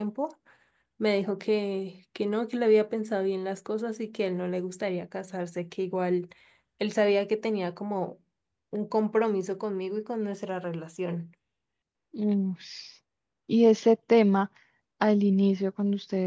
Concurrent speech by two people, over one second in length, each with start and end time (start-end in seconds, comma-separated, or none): none